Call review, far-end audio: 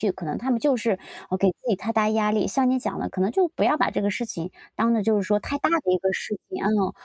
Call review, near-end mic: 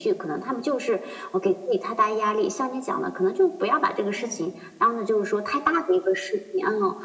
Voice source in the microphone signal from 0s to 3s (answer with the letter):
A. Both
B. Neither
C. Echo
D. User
C